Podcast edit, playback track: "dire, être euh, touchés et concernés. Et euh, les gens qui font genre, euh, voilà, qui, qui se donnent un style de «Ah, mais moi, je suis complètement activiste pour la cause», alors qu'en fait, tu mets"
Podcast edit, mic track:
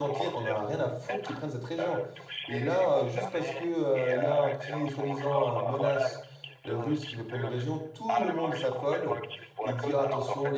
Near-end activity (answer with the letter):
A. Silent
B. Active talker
B